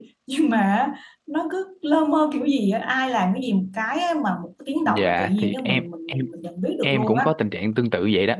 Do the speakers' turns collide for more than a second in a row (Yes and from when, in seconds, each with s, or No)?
Yes, from 4.9 s